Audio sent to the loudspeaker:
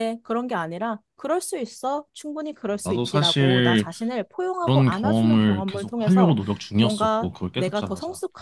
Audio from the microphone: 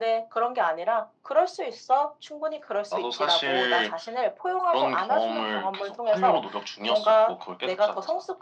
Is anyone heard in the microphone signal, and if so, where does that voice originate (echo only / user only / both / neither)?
echo only